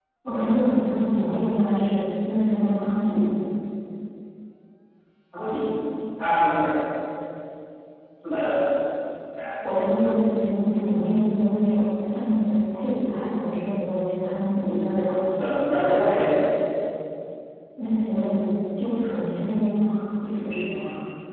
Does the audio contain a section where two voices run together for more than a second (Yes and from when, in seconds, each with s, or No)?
No